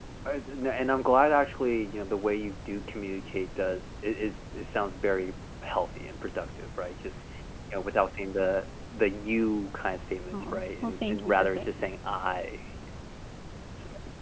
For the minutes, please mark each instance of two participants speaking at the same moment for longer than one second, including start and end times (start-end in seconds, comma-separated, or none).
10.3-11.7